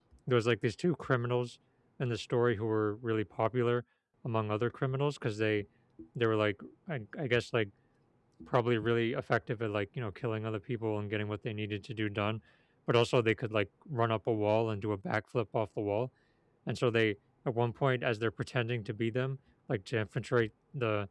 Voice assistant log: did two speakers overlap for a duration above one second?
No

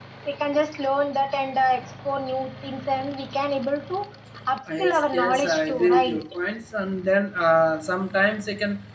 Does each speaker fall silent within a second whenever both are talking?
No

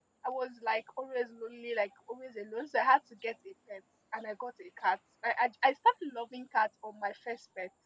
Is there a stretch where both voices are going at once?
No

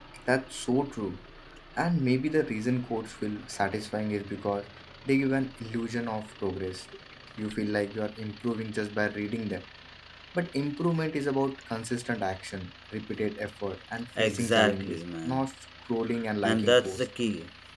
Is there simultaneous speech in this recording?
Yes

